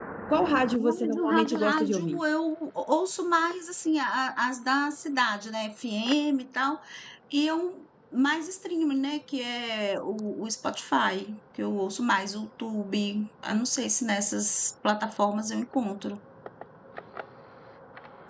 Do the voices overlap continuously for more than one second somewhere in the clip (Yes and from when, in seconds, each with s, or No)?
Yes, from 0.8 s